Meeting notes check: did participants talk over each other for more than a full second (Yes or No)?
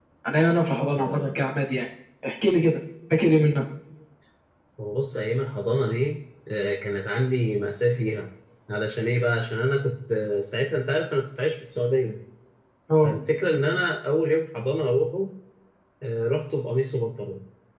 No